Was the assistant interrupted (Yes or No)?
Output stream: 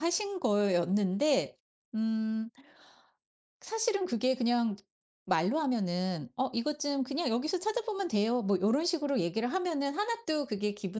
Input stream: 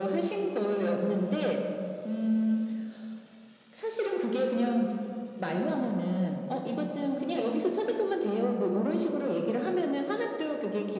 No